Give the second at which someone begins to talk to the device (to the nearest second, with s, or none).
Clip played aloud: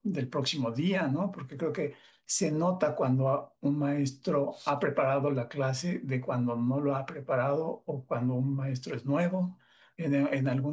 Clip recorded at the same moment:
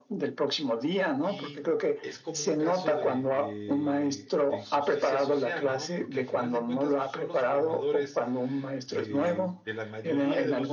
1 s